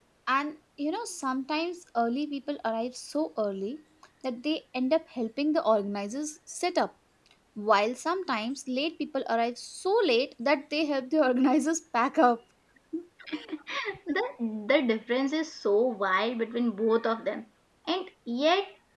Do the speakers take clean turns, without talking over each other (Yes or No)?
Yes